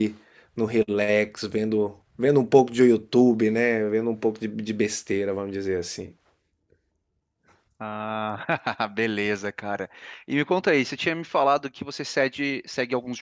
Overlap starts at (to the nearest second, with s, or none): none